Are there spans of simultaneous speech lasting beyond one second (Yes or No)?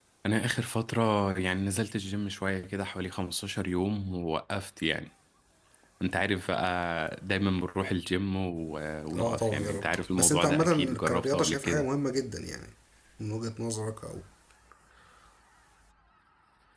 Yes